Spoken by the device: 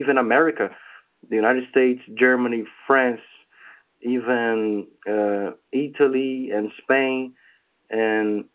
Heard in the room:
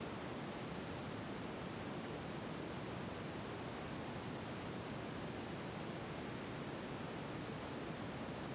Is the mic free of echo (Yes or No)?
Yes